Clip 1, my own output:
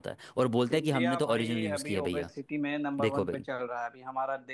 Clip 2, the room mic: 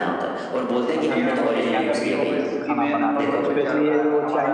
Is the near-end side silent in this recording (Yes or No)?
No